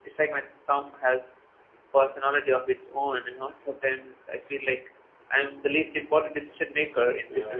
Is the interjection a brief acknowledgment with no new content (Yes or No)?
No